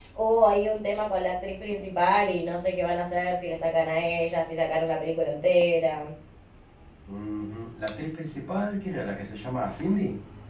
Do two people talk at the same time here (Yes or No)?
No